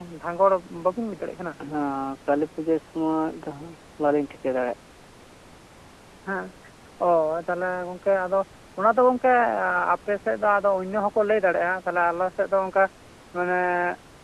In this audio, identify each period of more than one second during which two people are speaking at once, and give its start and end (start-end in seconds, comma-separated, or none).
none